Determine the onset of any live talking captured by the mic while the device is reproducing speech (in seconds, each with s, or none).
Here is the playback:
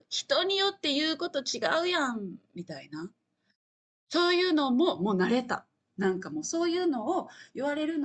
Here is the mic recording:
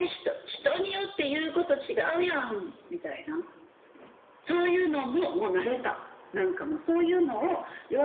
none